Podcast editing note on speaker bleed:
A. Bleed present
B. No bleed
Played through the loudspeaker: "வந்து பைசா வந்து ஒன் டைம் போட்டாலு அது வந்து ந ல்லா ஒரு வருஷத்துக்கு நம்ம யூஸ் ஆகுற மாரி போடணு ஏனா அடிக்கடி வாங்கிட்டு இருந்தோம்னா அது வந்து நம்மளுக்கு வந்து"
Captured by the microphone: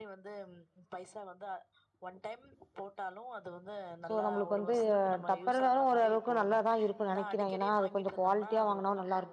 A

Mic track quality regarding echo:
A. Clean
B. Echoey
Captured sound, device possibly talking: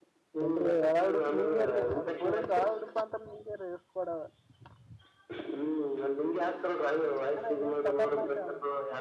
B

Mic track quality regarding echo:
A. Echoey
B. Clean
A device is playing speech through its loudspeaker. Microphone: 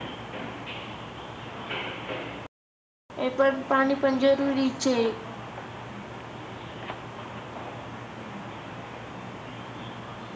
B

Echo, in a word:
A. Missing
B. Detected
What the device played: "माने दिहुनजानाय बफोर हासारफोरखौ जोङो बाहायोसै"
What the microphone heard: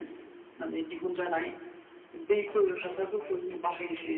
B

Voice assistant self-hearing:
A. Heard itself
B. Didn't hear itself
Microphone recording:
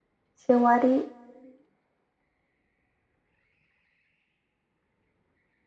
B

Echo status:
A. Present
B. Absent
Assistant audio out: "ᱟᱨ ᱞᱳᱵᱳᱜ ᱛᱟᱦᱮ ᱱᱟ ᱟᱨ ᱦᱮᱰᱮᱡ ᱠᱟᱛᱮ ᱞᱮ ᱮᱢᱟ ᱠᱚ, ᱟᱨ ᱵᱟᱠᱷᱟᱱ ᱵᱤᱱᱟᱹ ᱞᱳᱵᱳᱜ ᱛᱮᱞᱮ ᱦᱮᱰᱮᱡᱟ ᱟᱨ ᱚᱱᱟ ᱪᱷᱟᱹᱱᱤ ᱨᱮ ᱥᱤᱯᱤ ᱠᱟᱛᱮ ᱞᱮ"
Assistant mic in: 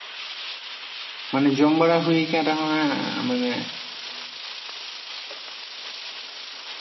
B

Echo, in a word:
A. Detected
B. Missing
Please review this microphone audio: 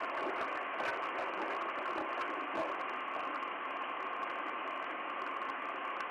B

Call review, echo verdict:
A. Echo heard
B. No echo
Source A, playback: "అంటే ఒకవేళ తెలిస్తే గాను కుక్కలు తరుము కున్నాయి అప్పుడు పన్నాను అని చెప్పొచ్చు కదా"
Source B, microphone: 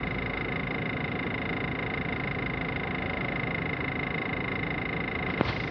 B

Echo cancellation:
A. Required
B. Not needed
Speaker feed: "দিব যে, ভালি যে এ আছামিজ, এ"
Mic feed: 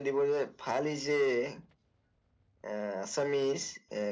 A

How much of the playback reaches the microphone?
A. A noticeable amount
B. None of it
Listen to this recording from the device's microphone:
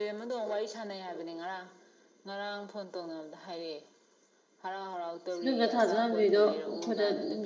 A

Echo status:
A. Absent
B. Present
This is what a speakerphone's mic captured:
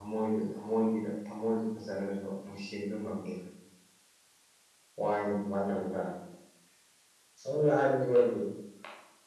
A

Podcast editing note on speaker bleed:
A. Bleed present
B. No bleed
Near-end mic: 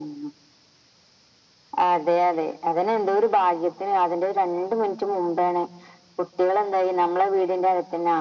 A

